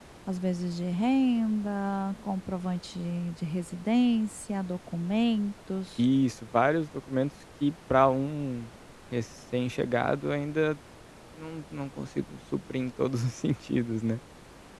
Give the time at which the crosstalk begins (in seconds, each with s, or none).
none